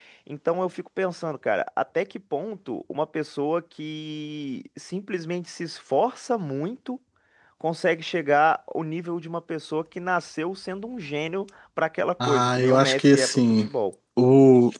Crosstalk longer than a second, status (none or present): present